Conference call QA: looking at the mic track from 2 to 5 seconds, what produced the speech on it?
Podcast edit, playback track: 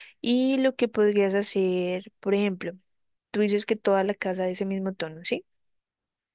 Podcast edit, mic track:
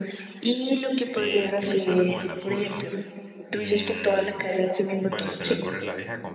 both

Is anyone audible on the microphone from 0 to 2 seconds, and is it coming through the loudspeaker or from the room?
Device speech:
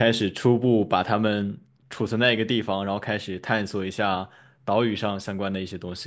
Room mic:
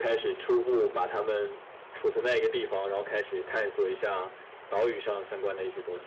echo only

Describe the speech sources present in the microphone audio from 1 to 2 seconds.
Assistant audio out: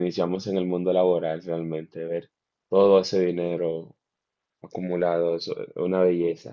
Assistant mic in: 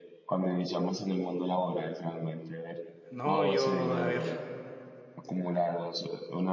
echo only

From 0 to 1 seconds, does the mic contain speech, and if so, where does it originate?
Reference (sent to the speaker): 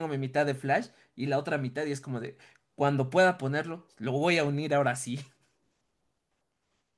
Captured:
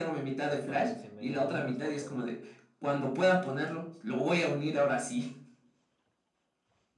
both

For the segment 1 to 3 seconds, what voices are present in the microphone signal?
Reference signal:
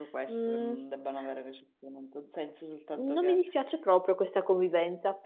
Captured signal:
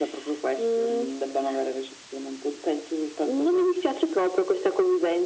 echo only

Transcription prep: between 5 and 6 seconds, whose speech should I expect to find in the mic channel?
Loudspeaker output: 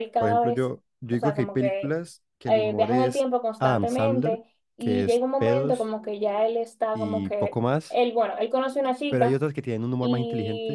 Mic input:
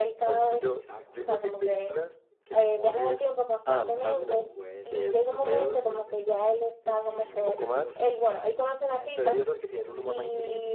both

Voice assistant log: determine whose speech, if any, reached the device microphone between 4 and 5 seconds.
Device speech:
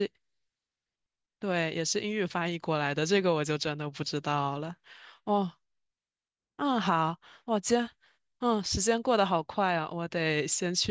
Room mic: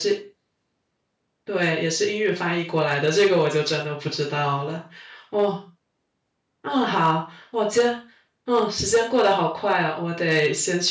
echo only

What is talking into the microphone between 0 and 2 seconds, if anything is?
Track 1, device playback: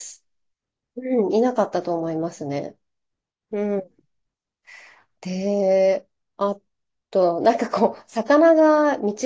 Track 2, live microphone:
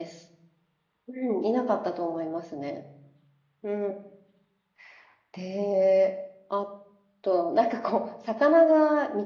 echo only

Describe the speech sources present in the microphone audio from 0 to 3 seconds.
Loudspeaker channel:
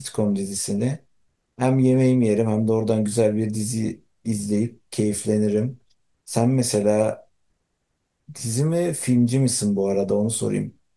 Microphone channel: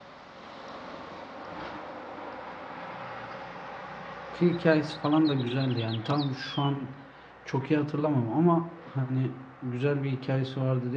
neither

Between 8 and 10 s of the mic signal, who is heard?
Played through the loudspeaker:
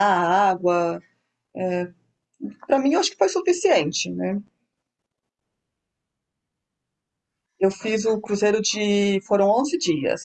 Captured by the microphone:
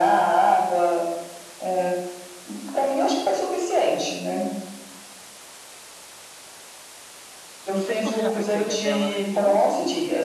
both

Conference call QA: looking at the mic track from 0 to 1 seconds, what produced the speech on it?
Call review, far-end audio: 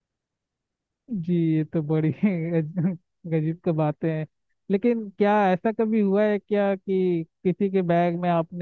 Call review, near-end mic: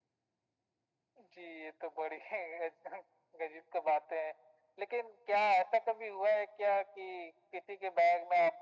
neither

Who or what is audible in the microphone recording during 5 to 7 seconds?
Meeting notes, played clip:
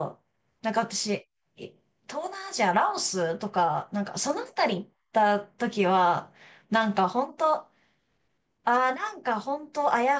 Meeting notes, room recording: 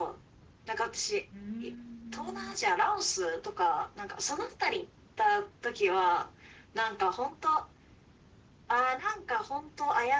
echo only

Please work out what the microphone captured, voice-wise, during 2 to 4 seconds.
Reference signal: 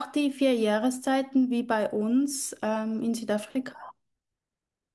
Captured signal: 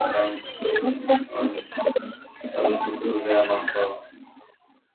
both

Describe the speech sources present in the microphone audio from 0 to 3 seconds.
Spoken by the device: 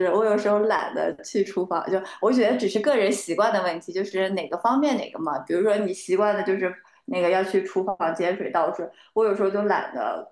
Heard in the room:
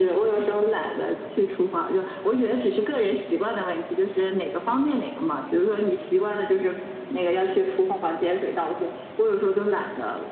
echo only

